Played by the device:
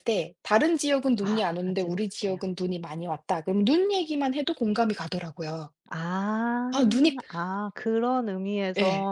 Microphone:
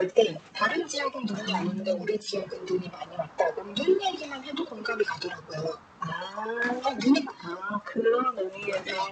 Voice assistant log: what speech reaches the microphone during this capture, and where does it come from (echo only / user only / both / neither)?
both